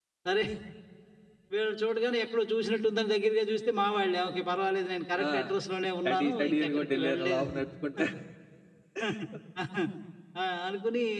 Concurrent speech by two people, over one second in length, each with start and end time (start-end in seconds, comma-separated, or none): 6.0-7.5